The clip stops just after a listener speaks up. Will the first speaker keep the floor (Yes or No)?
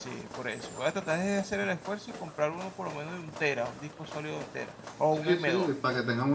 No